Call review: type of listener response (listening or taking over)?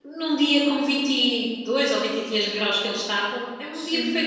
taking over